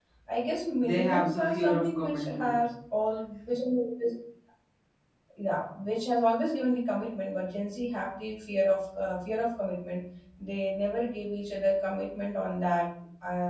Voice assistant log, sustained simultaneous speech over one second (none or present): present